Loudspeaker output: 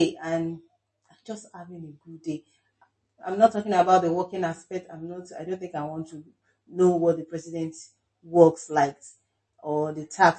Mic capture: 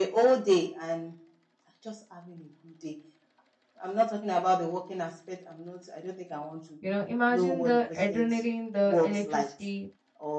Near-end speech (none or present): present